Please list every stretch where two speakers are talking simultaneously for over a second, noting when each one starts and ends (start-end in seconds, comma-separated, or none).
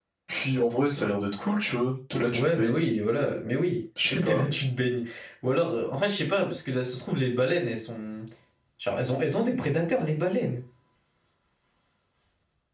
none